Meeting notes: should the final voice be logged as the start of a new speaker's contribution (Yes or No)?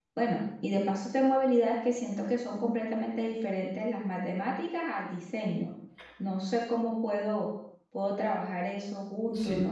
Yes